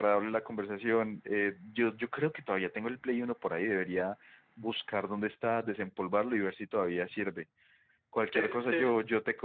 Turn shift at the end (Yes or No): No